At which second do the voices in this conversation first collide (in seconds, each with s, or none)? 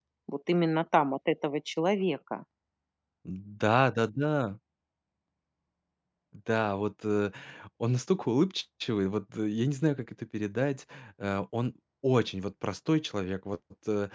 none